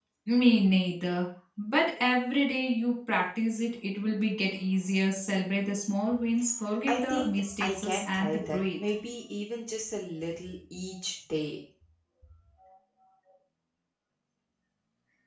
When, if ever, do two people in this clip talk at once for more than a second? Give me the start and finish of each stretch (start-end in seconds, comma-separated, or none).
6.9-8.8